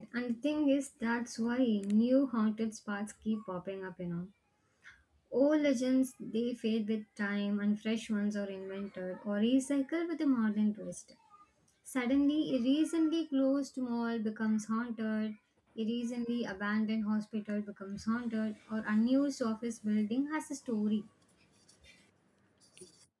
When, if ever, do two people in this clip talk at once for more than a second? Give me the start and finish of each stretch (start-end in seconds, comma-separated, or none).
none